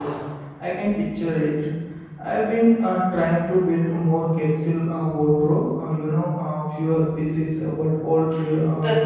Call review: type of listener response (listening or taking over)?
taking over